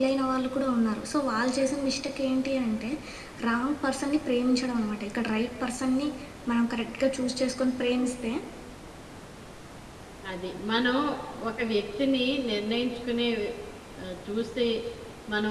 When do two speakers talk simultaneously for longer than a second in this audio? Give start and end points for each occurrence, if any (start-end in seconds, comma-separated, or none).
none